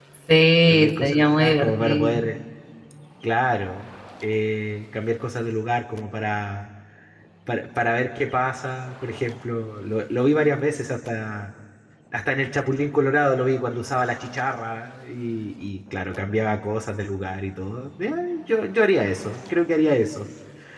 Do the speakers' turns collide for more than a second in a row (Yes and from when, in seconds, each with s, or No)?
Yes, from 0.7 s